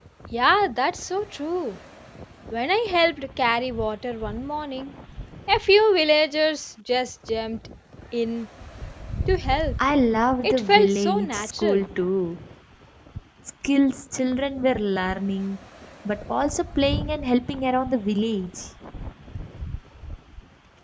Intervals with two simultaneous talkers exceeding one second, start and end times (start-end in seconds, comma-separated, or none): 10.4-11.8